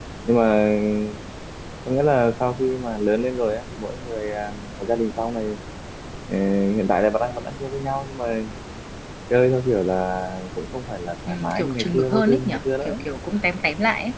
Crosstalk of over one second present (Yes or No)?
Yes